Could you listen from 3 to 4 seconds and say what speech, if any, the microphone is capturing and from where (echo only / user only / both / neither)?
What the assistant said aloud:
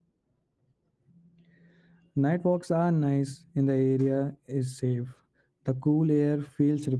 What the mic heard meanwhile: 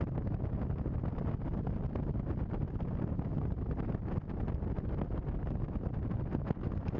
neither